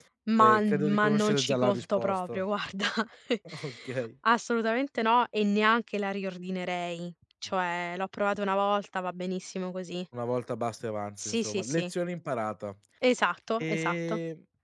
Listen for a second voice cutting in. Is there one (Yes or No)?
Yes